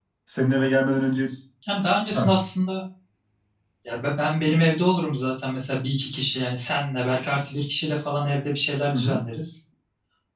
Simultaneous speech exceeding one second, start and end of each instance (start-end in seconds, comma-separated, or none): none